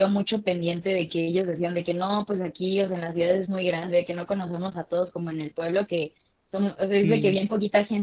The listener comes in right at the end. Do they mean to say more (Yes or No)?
No